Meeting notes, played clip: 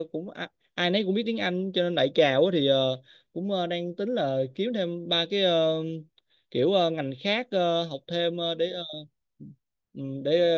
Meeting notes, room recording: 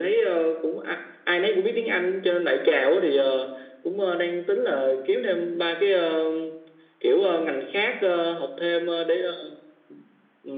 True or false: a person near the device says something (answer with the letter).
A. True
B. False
B